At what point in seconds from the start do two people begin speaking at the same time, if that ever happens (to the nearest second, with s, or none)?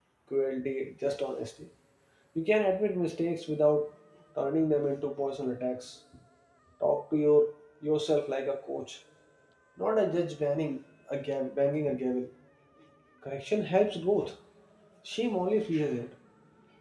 none